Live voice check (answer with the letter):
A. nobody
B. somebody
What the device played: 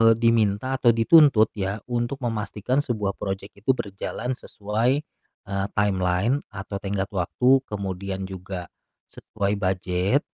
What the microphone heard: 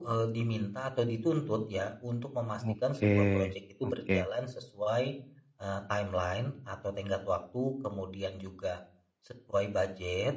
B